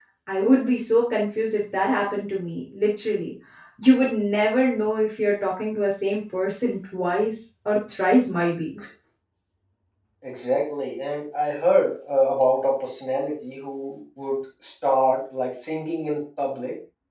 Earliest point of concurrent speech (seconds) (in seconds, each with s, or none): none